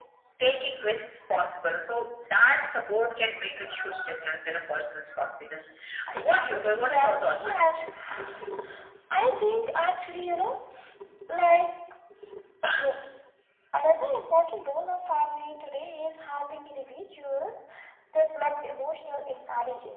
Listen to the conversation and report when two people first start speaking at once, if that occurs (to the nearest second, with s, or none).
6 s